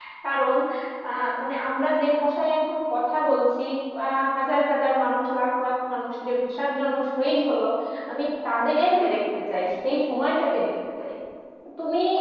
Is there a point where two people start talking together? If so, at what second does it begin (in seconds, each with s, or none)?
none